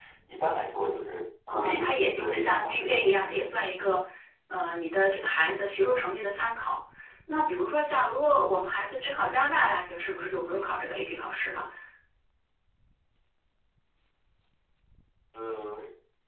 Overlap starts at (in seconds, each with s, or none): 1.5 s